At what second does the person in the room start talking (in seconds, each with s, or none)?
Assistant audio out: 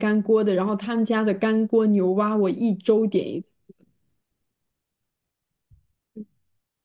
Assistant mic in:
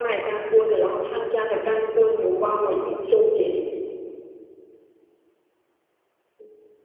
none